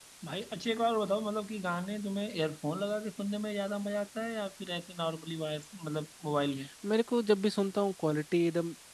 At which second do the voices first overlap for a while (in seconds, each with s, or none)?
none